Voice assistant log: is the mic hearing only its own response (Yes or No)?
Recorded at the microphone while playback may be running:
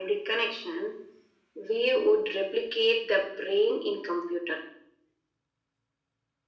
Yes